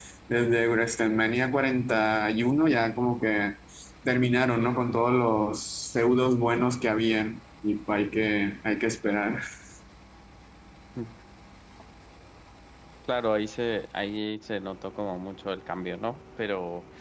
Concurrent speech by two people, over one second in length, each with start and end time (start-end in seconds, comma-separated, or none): none